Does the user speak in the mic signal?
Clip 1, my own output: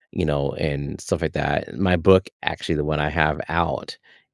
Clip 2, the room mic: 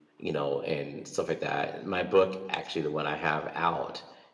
No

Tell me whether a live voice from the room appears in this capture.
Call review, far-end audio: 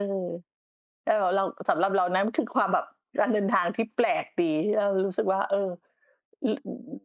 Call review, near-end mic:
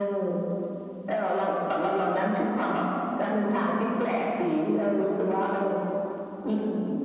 No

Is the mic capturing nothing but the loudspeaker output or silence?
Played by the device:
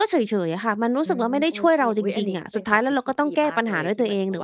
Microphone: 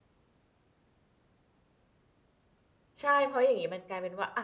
No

